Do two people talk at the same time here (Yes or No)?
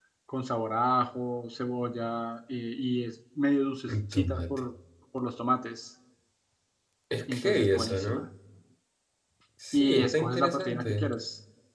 Yes